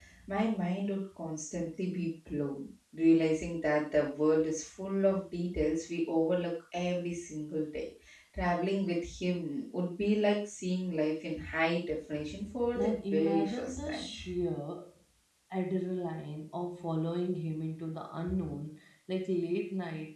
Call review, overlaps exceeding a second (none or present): present